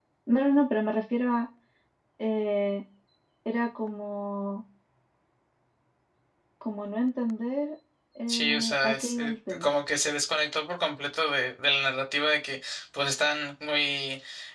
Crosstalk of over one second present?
Yes, from 8.3 s

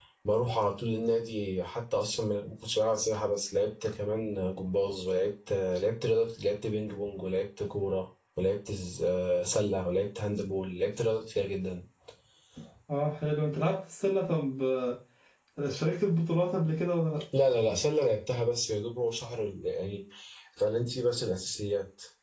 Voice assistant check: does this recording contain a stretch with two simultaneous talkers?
No

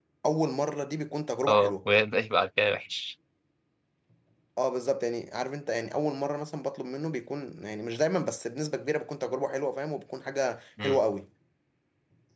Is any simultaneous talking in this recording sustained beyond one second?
No

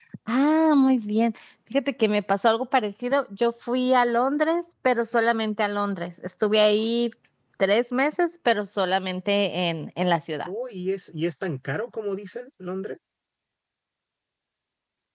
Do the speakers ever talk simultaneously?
No

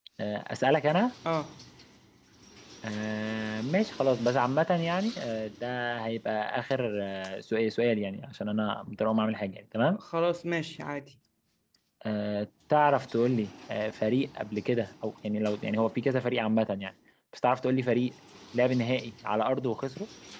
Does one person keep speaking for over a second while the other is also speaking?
No

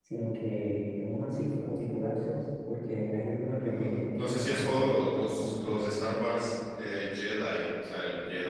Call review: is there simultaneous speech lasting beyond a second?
Yes, from 3.6 s

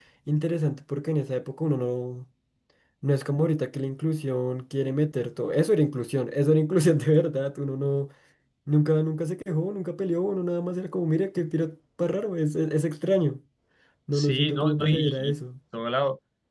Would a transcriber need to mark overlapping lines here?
Yes, from 14.1 s

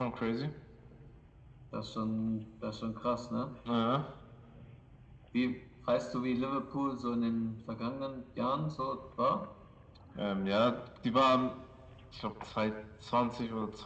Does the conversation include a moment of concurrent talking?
No

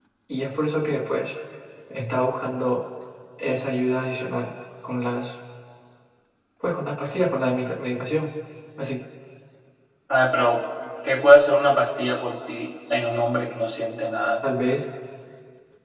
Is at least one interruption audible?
No

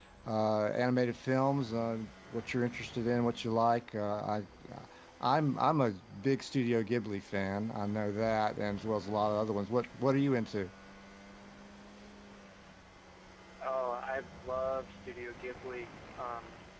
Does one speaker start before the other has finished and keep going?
No

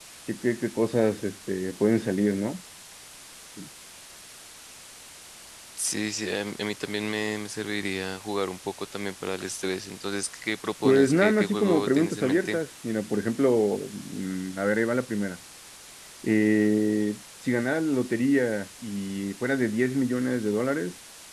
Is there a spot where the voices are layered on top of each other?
Yes, from 10.8 s

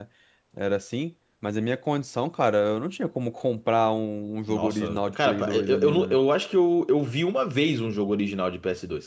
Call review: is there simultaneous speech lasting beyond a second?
Yes, from 4.5 s

